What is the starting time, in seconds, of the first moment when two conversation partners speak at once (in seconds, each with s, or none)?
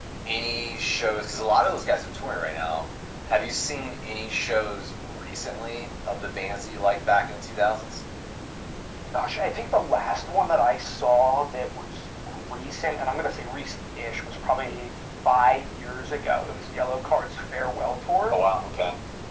none